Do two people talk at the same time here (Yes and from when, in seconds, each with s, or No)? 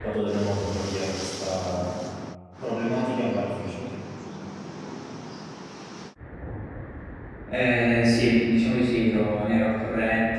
No